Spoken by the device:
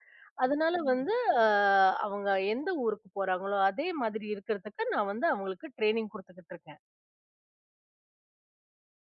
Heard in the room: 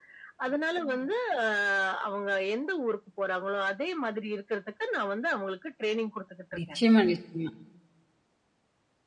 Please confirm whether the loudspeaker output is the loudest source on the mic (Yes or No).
No